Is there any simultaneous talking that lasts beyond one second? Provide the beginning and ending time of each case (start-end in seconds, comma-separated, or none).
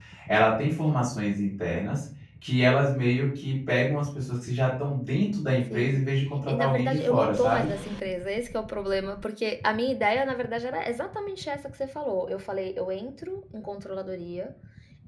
6.5-7.7